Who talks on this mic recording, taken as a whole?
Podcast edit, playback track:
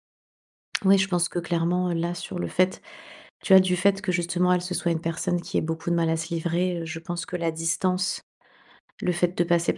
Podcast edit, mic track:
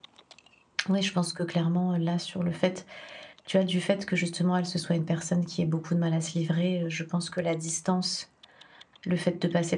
echo only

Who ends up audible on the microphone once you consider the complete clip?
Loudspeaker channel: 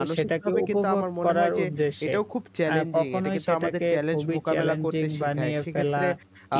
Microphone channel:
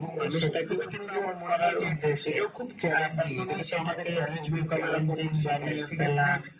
echo only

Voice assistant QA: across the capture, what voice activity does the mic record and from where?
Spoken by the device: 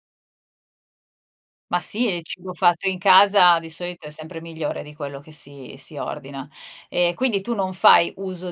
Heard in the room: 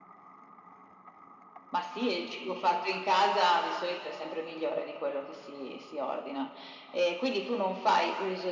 echo only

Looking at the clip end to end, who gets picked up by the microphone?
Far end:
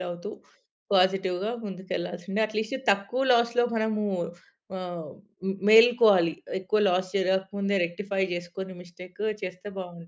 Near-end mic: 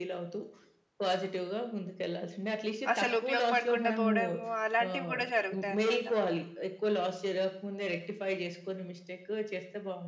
both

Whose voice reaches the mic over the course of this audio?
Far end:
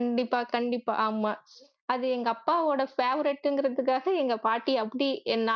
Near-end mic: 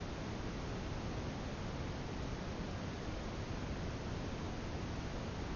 neither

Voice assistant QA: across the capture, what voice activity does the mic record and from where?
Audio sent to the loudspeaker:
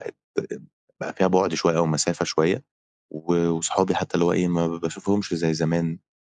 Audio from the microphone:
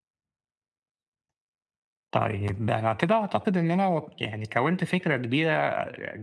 user only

